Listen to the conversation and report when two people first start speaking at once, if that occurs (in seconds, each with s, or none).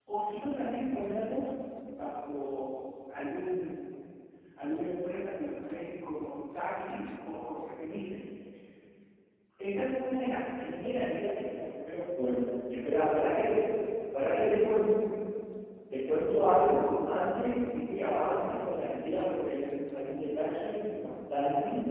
none